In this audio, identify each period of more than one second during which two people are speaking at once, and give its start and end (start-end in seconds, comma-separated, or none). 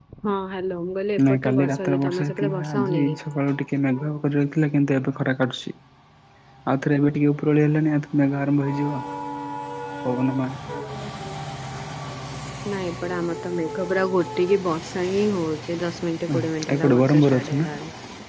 1.3-3.1, 16.4-17.7